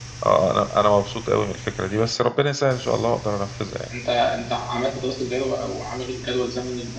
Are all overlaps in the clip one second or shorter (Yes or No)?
Yes